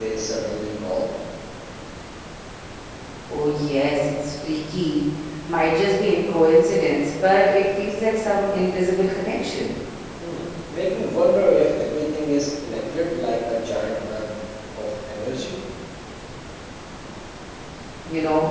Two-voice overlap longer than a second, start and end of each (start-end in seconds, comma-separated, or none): none